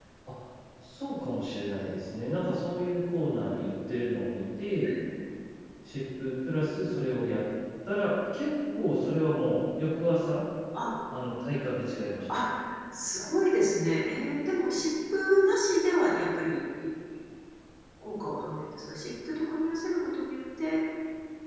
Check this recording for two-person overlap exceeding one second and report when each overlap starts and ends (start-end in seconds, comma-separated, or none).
none